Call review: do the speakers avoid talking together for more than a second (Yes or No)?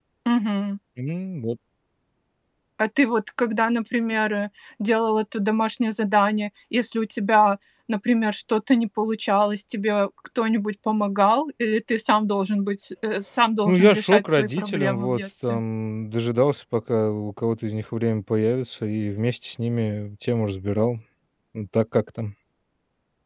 No